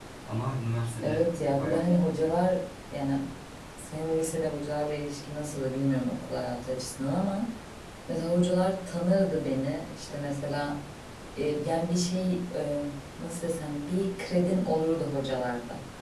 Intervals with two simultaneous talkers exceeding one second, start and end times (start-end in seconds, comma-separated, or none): 1.0-2.4